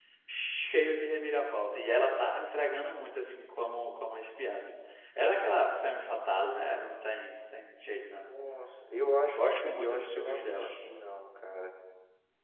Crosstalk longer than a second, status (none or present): present